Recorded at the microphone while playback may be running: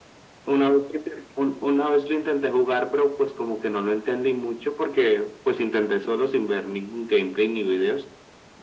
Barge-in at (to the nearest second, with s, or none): none